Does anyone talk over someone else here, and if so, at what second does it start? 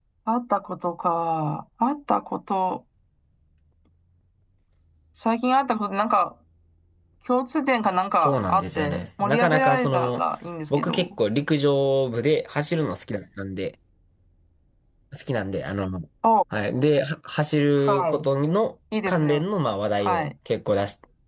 8.2 s

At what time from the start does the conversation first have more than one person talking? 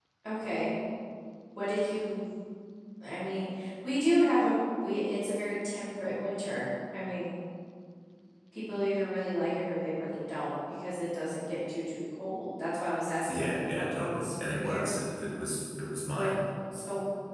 13.3 s

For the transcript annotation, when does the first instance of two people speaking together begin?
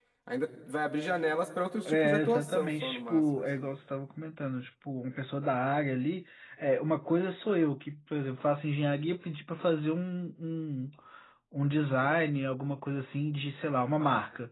1.9 s

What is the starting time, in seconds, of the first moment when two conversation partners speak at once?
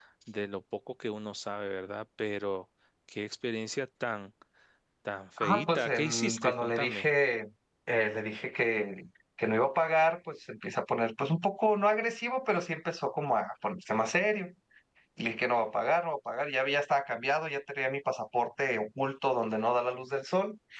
5.4 s

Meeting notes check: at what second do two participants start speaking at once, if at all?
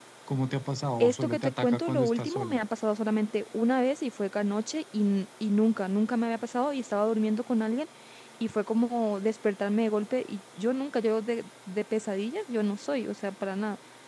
1.0 s

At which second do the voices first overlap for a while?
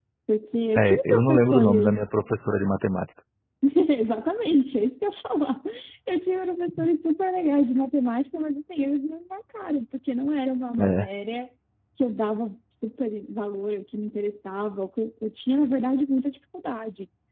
0.8 s

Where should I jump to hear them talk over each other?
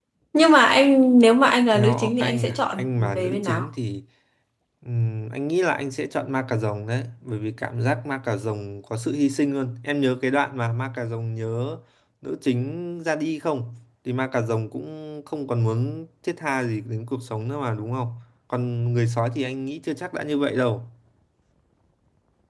1.7 s

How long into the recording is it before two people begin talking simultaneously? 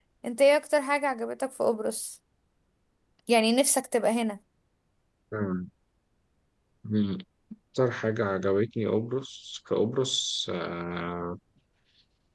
none

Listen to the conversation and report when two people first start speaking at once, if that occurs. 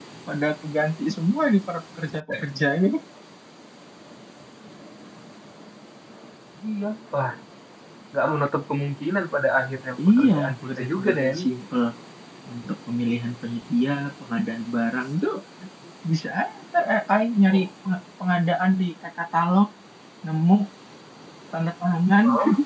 10.2 s

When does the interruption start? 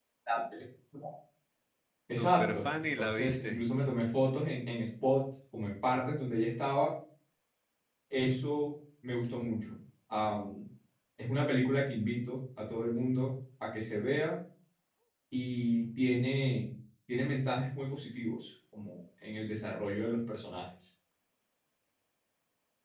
2.2 s

